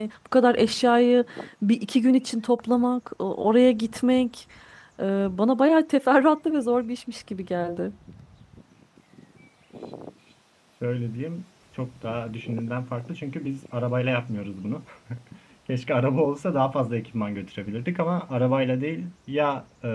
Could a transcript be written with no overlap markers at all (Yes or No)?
Yes